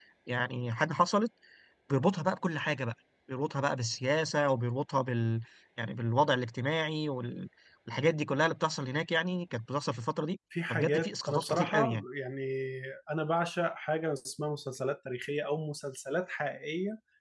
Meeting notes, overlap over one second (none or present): present